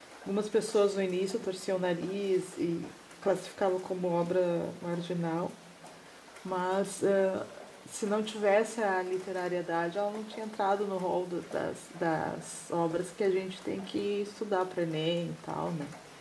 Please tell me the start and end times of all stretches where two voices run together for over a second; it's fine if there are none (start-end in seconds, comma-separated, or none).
none